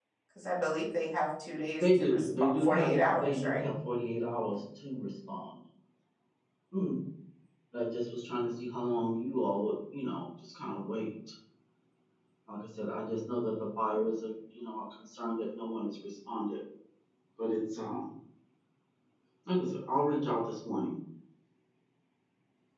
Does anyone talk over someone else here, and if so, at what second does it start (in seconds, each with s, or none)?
1.8 s